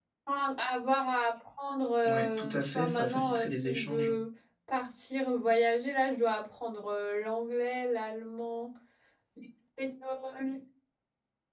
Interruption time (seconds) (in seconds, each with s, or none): 2.0 s